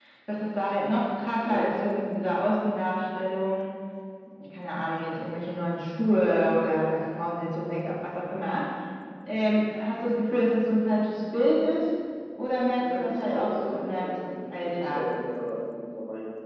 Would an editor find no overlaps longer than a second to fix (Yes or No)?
No